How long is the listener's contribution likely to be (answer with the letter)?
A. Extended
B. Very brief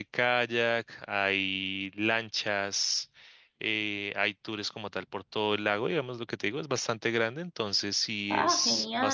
B